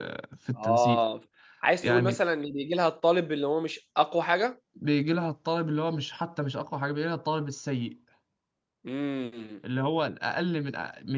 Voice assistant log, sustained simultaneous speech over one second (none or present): none